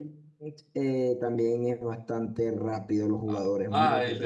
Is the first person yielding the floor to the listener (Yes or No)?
Yes